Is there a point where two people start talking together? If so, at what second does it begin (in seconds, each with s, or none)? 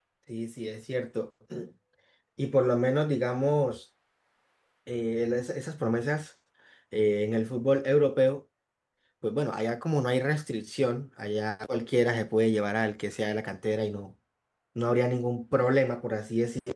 none